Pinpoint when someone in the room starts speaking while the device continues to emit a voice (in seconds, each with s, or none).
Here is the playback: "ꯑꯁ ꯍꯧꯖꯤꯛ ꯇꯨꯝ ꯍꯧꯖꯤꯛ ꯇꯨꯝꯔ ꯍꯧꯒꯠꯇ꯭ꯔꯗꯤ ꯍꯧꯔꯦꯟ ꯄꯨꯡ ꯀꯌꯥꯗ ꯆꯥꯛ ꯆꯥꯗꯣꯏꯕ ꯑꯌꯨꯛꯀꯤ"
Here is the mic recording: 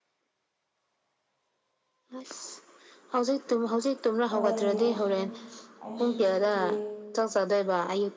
4.3 s